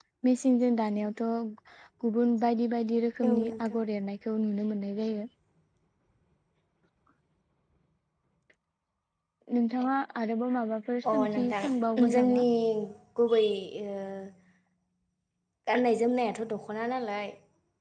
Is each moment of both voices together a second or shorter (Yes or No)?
No